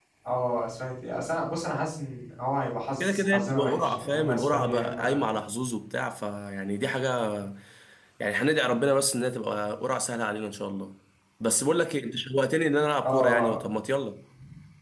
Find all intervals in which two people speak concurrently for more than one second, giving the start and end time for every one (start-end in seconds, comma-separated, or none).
3.0-5.3